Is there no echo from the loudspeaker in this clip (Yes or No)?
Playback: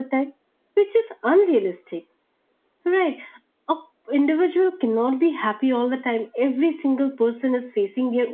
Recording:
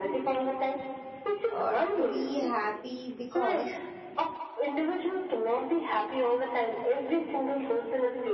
No